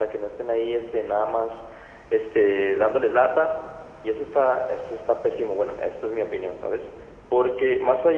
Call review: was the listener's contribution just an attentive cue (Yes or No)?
Yes